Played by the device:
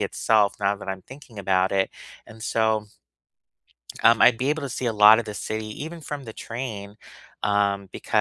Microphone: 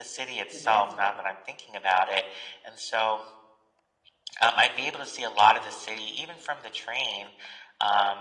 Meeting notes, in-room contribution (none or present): present